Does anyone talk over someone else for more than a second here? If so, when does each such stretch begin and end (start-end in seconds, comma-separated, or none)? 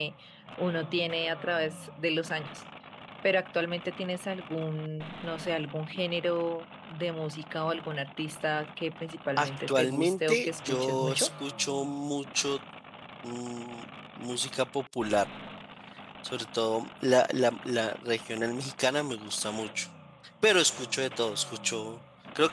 9.4-11.3